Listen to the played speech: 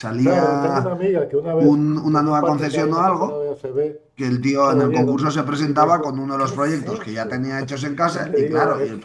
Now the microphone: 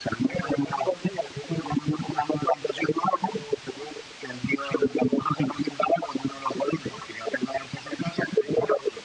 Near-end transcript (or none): none